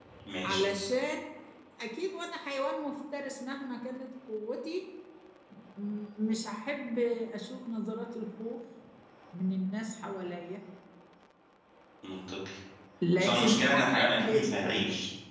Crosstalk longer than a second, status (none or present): present